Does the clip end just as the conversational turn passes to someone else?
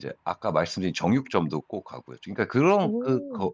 No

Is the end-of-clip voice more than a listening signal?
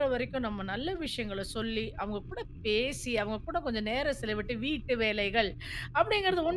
No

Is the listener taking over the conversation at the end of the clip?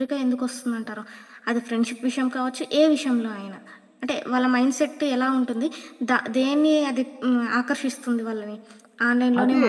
Yes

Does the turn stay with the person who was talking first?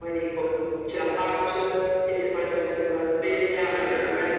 Yes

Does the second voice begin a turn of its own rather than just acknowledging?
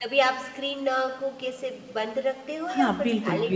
Yes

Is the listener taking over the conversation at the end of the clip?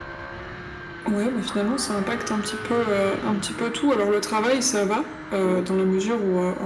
No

